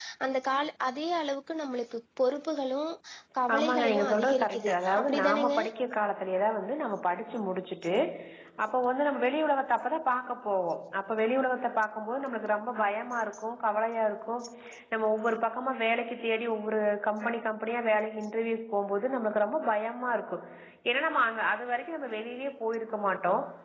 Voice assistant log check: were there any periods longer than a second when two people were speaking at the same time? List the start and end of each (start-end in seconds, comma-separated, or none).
3.5-5.5